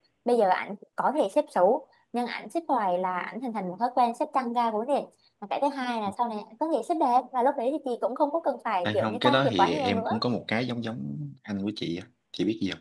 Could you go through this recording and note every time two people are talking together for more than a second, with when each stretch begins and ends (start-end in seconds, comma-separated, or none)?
8.8-10.2